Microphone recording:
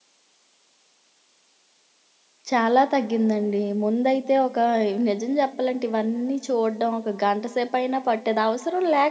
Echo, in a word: none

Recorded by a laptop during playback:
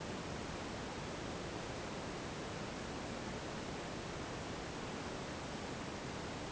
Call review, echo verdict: none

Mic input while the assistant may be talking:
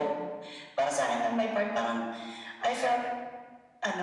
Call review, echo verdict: present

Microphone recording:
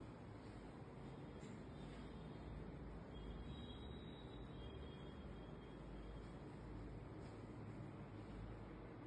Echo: none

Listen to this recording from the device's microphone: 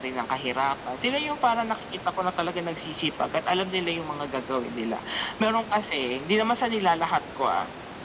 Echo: present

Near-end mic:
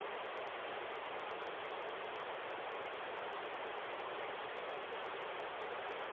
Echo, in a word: none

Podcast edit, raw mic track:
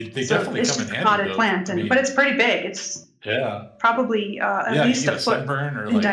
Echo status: present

